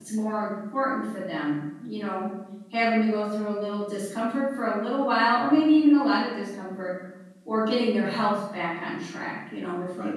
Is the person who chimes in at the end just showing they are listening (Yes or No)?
No